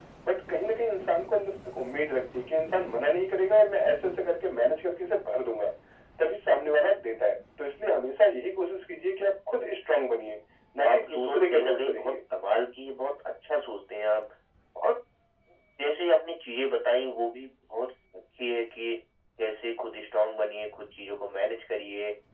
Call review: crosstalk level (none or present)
present